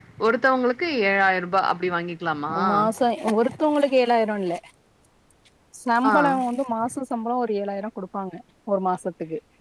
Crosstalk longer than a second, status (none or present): none